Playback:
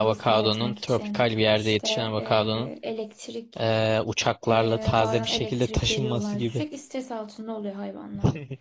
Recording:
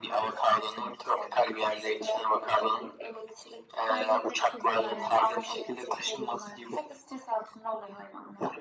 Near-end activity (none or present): present